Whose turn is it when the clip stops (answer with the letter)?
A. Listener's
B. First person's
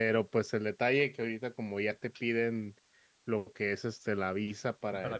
B